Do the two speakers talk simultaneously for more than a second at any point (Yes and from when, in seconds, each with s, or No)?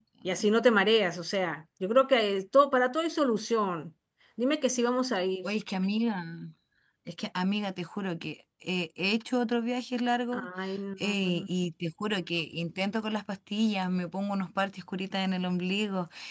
No